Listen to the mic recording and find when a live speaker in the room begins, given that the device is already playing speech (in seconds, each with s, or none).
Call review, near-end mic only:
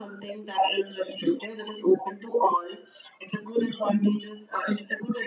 none